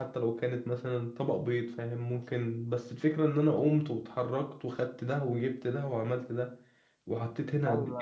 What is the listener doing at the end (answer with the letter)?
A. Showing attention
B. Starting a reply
A